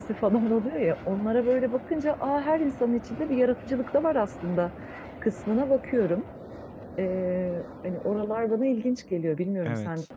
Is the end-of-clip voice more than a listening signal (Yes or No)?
Yes